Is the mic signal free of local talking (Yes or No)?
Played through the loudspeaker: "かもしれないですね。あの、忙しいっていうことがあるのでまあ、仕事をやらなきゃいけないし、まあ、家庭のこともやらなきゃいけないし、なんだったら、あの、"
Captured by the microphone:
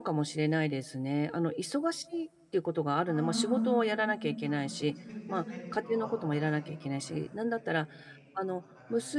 No